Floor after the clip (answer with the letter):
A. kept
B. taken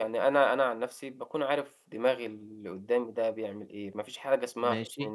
A